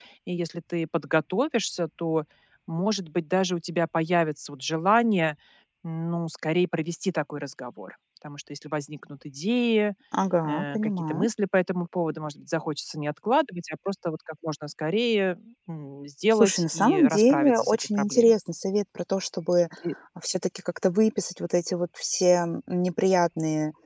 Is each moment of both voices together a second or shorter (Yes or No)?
No